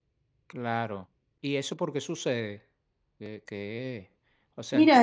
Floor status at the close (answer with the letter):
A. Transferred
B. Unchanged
A